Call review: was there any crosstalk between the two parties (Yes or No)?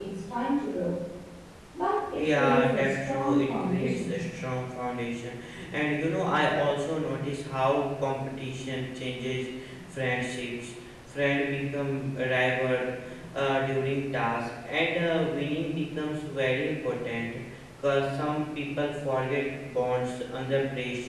Yes